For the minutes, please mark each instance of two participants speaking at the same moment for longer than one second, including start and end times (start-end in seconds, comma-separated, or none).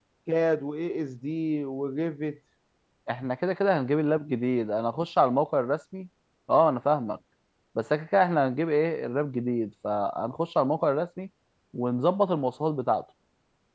none